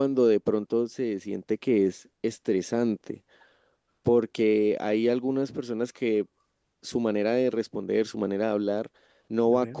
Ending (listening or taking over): listening